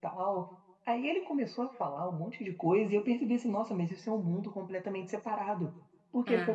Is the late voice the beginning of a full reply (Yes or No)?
No